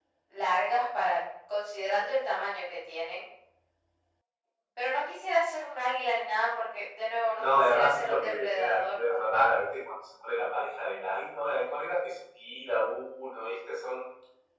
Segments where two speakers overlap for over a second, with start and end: 7.4-9.0

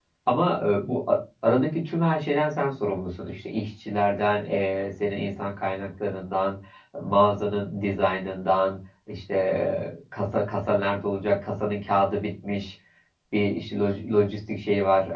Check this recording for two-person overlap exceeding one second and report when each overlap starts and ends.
none

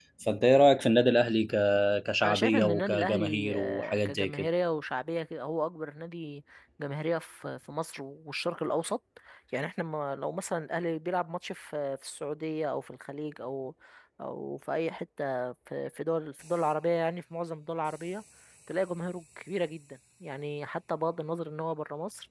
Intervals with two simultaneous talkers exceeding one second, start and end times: 2.2-4.5

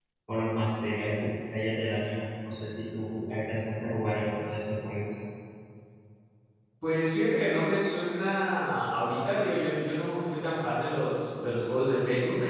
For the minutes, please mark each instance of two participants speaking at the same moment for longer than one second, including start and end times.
none

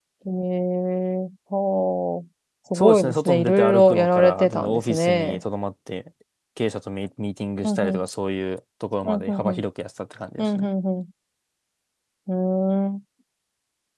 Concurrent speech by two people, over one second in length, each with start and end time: 2.8-5.4

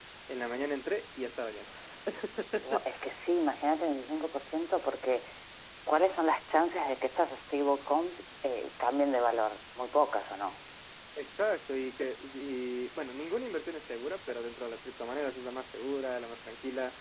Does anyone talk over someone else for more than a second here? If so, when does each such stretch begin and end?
none

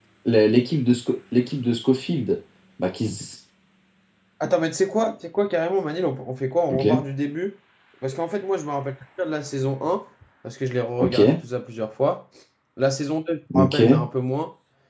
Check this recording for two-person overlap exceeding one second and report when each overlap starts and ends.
none

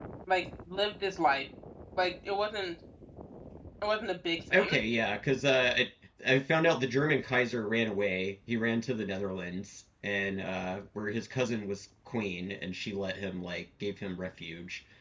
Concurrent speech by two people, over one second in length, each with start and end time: none

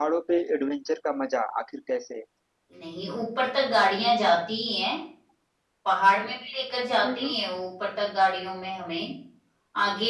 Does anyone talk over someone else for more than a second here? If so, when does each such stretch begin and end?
none

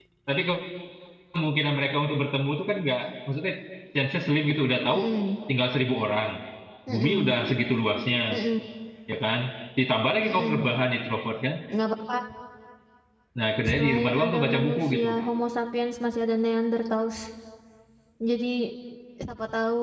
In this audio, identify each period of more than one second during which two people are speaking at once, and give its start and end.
13.7-15.1

